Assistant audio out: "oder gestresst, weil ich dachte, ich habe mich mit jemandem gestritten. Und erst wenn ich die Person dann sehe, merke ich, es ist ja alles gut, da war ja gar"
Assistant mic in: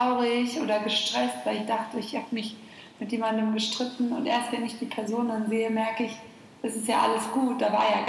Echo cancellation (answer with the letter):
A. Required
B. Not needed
A